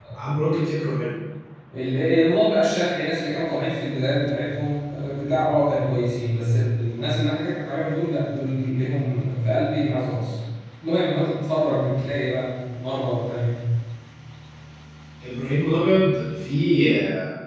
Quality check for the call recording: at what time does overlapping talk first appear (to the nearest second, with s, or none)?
none